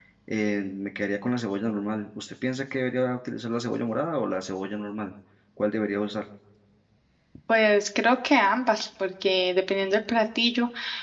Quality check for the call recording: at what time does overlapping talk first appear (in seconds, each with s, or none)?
none